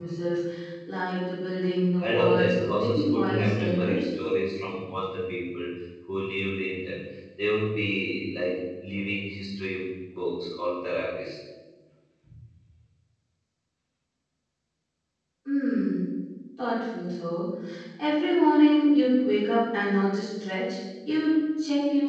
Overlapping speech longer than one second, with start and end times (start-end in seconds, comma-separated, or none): 2.0-4.0